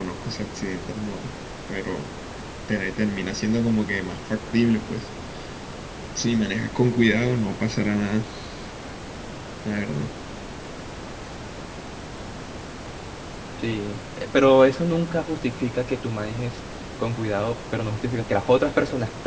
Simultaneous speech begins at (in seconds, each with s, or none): none